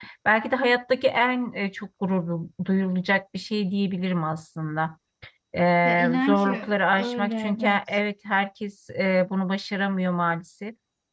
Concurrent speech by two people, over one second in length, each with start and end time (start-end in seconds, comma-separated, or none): 5.8-7.8